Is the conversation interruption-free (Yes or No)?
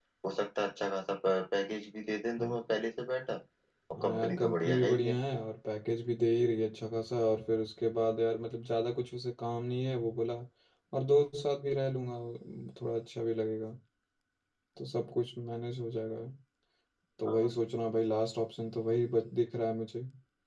No